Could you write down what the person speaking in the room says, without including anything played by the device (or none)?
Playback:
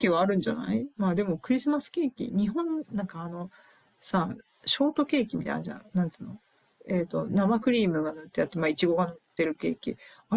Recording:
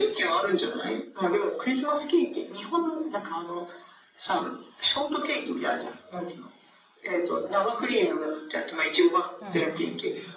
うん。